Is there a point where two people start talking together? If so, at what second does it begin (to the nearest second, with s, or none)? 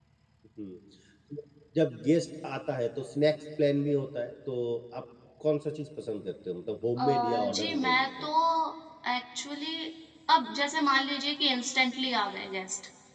7 s